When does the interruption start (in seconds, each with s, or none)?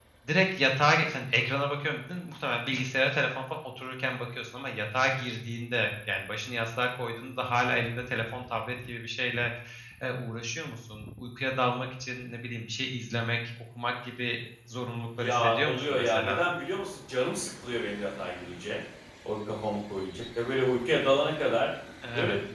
15.2 s